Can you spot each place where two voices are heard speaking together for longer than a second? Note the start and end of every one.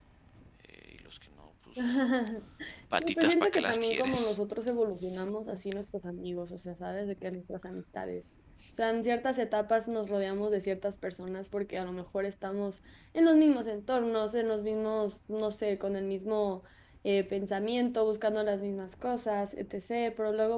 3.0-4.4

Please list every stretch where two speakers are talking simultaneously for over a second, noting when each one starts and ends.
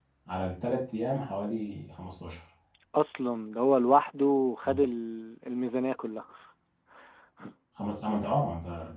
none

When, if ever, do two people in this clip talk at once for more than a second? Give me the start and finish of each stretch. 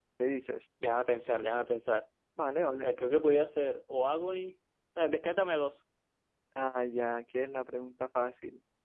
none

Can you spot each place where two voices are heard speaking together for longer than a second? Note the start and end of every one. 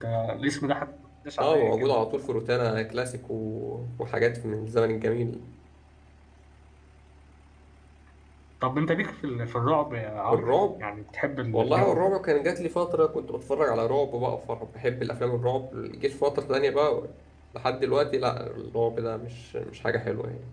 none

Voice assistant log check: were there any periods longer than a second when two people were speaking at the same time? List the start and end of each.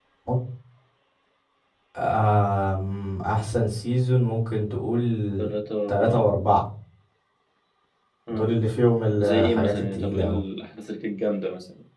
9.2-10.4

